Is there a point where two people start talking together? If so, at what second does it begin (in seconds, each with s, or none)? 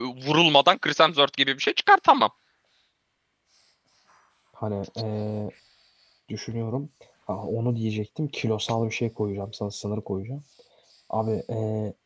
none